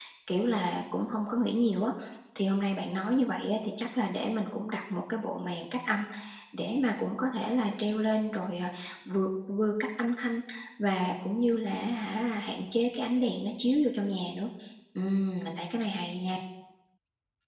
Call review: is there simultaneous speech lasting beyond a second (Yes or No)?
No